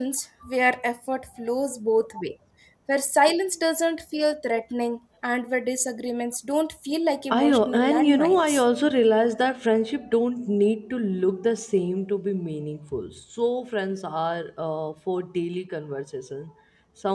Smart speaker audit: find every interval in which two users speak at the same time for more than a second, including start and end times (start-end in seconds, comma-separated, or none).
7.3-8.6